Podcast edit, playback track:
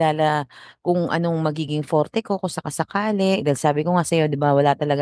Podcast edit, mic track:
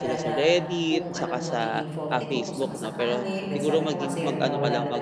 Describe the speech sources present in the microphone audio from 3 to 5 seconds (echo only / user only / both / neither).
both